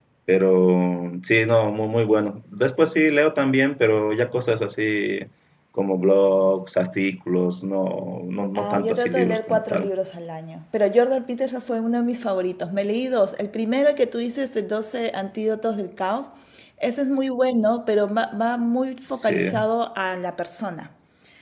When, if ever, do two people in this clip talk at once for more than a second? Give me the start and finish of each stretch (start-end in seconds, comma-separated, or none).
8.6-9.9